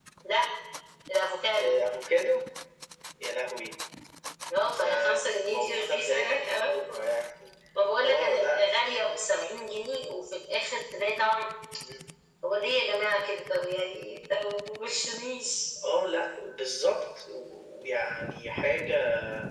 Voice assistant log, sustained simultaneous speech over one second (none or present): present